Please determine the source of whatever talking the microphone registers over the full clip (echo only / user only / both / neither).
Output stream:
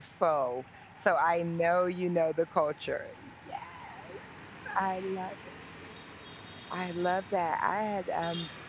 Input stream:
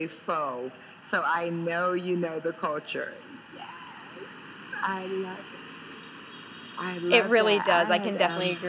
both